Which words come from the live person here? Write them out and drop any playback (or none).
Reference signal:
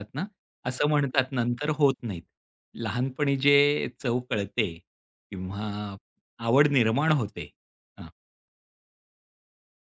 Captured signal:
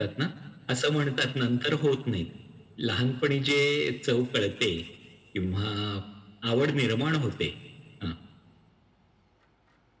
none